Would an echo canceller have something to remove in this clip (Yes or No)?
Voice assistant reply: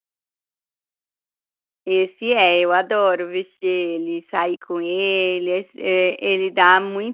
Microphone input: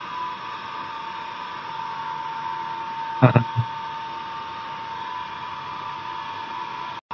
No